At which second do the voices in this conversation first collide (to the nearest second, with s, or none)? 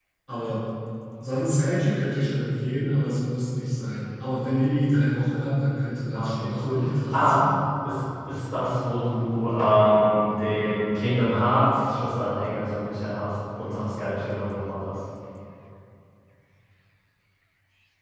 6 s